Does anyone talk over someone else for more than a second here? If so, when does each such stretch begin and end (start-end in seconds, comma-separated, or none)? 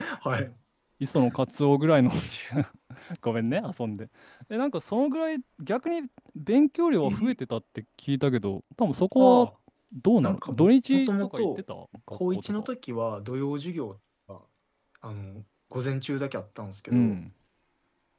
10.2-11.5